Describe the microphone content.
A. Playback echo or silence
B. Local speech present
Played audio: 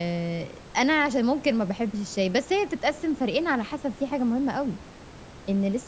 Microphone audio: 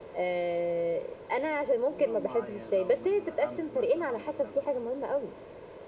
B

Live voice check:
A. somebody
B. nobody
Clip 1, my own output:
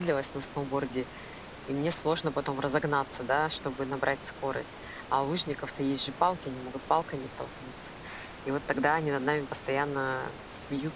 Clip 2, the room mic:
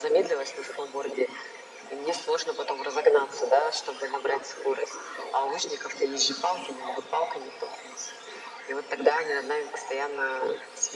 B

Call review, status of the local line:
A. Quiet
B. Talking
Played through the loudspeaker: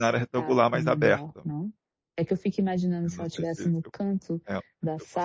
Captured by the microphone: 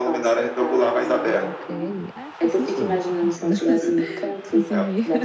B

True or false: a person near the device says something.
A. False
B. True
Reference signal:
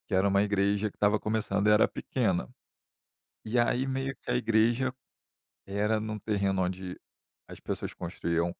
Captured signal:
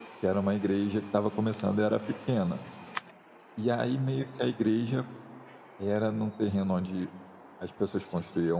A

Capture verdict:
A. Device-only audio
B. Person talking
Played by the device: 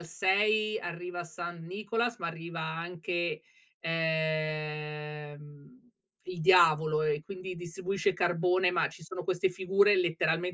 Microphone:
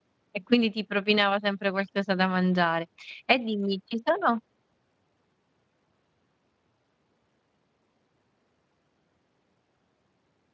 B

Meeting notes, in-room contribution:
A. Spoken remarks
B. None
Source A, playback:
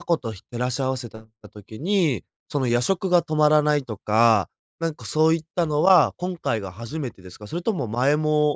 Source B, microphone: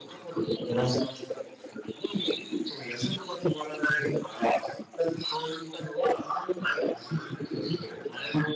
B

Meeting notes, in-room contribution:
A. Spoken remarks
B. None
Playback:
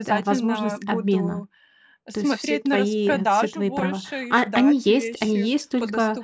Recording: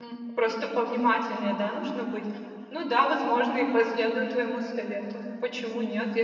A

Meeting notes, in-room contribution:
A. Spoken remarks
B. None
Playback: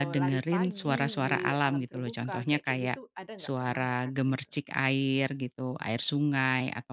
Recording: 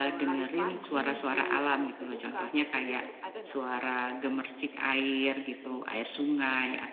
B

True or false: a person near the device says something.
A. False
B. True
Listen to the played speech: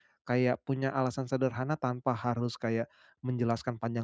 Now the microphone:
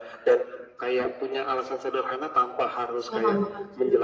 B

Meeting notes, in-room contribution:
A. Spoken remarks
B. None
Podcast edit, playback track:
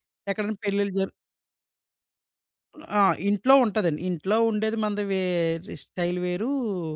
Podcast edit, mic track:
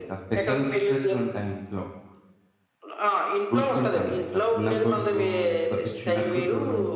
A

